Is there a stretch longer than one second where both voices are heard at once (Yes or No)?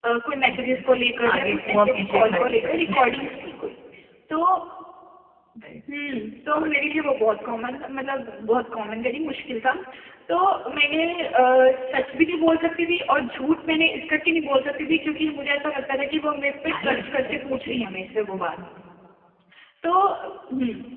Yes